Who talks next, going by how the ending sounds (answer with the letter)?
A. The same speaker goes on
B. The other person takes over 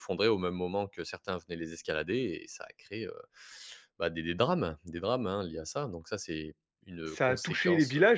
B